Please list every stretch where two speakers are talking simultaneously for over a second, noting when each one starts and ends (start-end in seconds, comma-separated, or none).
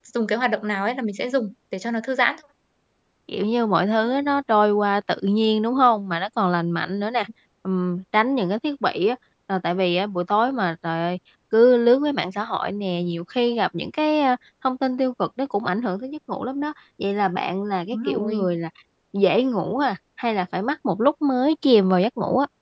none